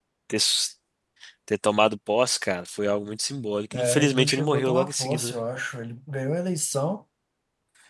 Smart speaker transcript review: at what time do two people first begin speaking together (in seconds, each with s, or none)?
3.7 s